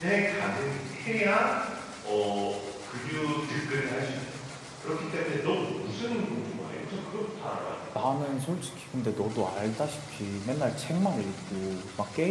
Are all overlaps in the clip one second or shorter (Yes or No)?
Yes